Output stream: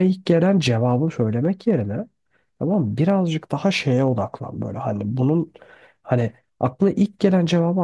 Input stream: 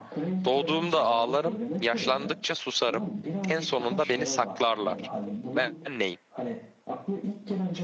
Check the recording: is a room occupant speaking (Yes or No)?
Yes